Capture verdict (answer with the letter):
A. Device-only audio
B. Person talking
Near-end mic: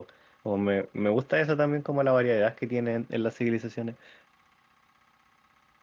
B